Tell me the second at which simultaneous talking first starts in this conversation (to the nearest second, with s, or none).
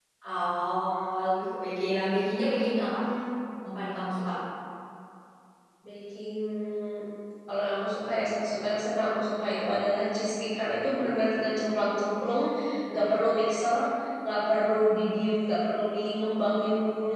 none